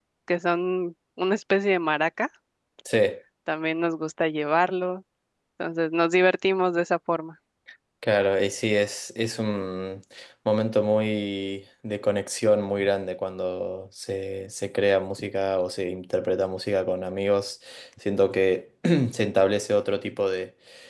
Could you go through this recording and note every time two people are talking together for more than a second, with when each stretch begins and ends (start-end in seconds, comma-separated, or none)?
none